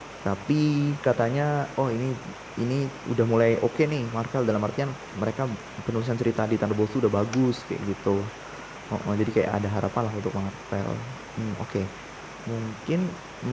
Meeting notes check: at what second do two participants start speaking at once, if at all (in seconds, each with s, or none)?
none